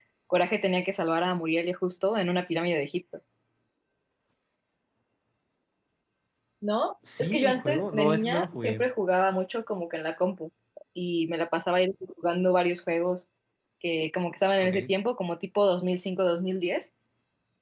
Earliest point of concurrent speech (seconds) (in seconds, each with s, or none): 7.2 s